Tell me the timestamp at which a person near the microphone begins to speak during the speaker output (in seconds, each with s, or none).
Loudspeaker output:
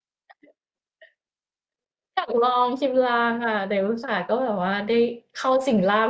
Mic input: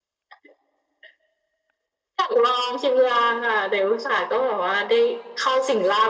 none